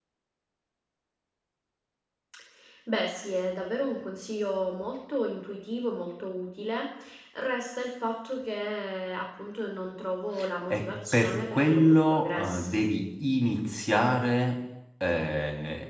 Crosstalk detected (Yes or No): Yes